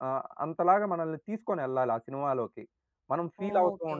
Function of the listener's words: taking over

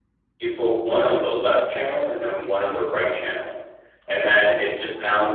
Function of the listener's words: listening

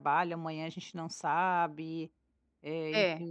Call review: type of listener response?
listening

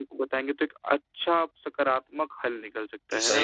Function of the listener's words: taking over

